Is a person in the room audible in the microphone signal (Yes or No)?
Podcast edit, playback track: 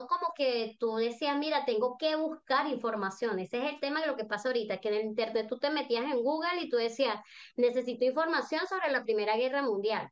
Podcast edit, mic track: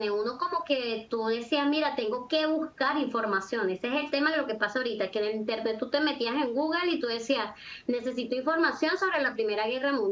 No